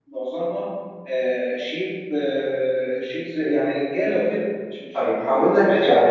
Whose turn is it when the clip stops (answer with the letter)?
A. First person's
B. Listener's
B